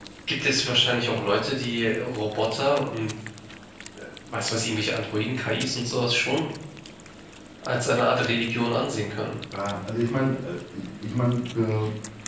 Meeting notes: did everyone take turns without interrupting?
Yes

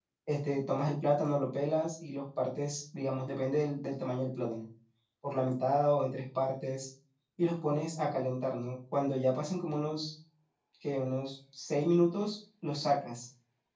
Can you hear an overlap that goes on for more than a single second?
No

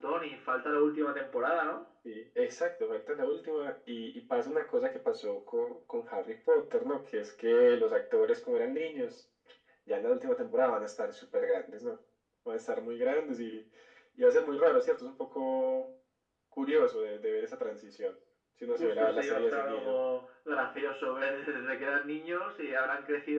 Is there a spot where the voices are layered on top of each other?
Yes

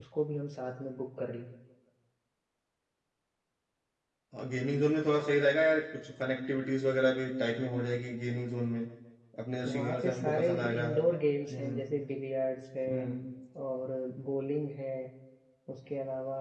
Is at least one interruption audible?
Yes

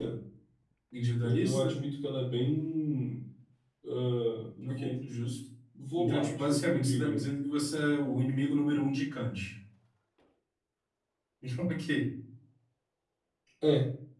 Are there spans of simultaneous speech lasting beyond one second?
Yes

